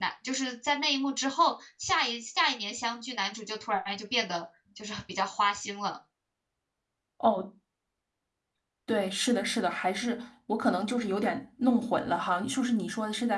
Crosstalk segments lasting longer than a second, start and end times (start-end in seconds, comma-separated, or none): none